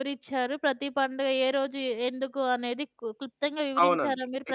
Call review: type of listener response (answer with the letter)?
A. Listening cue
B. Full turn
B